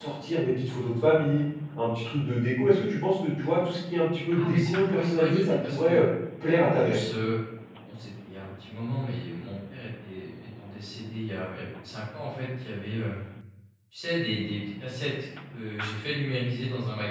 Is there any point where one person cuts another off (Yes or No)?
Yes